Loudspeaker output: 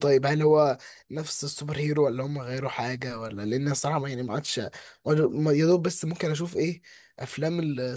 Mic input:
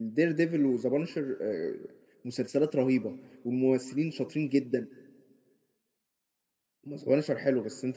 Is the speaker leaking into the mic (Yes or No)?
No